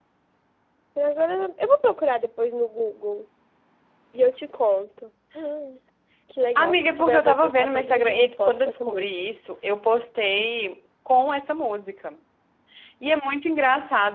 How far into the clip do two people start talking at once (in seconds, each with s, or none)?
6.5 s